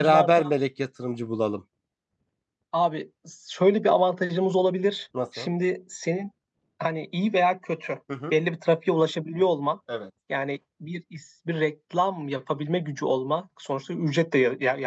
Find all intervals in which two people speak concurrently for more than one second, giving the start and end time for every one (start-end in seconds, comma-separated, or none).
none